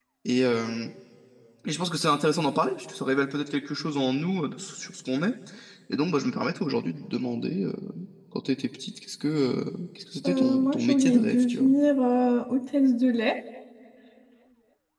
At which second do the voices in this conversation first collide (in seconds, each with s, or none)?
10.2 s